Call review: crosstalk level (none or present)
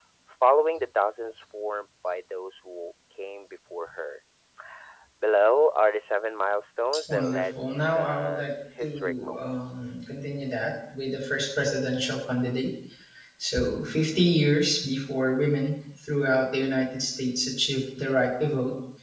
present